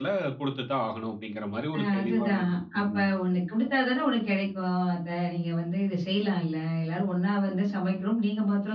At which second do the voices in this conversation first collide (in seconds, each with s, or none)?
1.7 s